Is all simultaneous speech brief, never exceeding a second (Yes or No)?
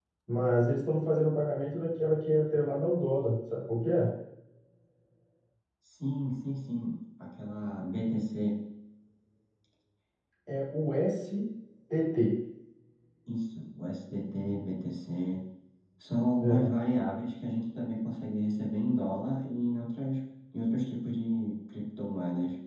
Yes